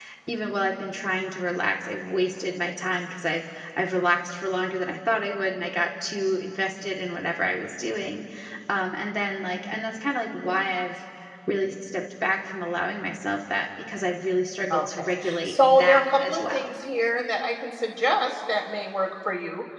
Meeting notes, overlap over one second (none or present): present